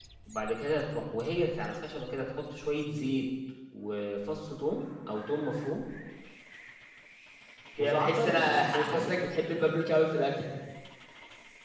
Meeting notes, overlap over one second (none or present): present